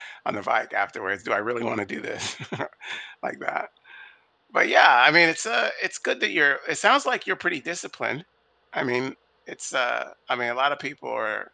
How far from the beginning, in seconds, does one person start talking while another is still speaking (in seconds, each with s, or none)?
none